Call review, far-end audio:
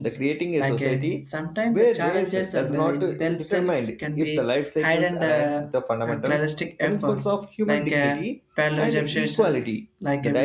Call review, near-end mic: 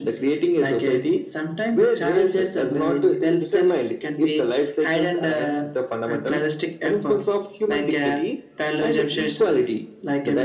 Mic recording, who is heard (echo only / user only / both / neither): echo only